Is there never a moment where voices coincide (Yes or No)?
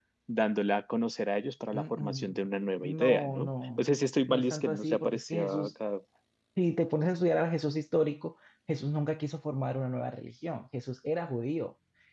No